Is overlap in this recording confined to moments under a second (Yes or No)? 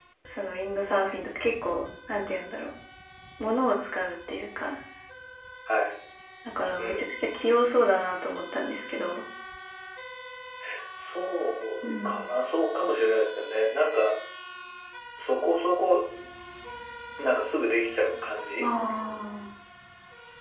Yes